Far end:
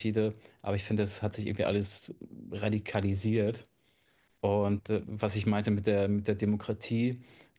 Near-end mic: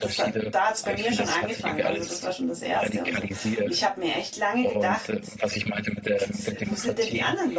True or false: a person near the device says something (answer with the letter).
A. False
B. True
B